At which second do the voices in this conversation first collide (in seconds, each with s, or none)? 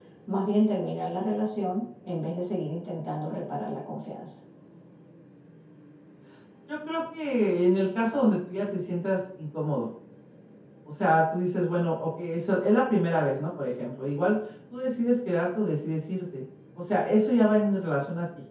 none